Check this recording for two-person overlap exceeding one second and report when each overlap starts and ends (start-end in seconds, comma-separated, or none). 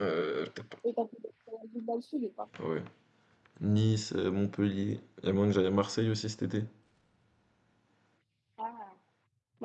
none